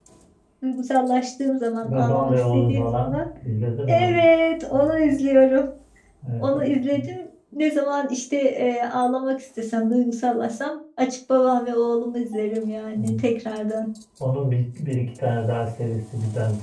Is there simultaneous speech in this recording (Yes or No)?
Yes